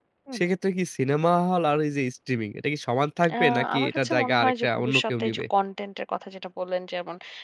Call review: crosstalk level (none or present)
present